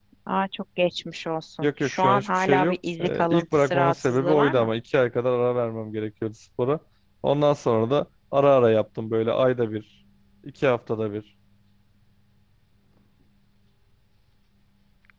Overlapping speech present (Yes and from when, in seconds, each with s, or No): Yes, from 1.6 s